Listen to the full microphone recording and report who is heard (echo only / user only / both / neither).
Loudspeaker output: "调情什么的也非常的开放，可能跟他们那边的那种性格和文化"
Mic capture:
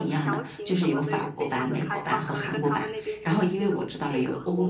both